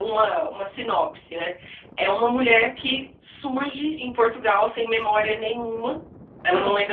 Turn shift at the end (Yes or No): No